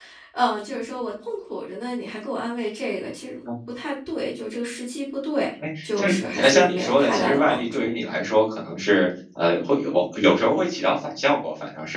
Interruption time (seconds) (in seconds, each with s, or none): 5.6 s